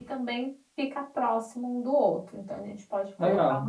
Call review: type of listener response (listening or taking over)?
listening